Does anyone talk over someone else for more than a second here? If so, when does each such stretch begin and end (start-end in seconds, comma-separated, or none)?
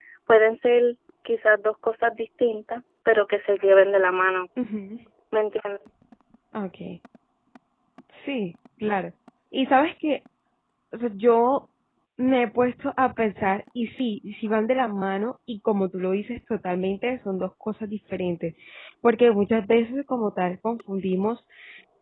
none